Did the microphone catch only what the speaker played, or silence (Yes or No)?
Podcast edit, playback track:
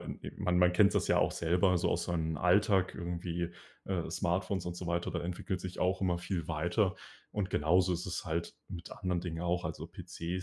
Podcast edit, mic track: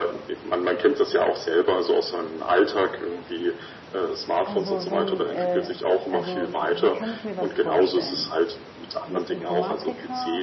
No